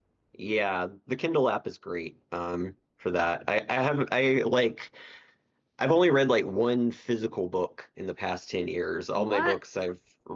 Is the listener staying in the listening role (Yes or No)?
Yes